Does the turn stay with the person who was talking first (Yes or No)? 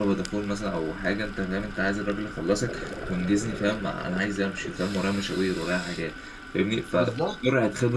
Yes